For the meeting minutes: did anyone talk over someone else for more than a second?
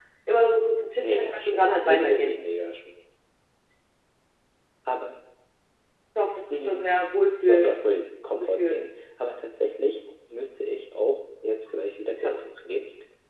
Yes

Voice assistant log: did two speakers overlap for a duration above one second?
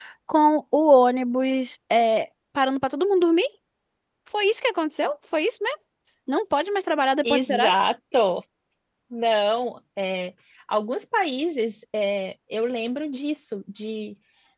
No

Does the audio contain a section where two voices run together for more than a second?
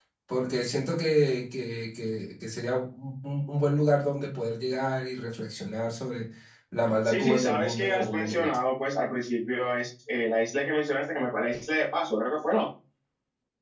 Yes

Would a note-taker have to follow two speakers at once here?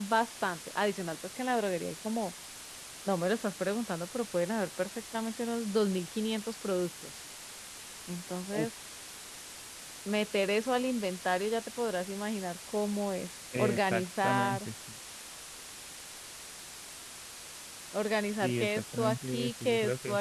Yes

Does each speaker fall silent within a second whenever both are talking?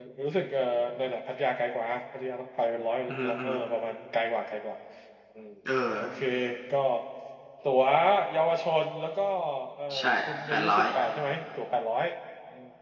Yes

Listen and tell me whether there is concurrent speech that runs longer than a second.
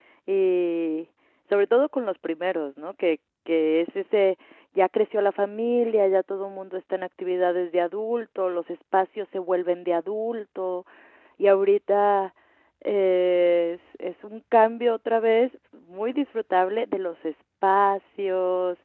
No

